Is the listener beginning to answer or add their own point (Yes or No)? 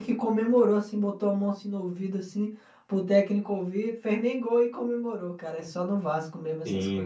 Yes